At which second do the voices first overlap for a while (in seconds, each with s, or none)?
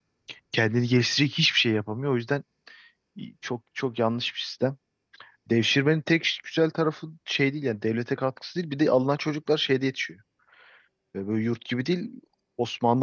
none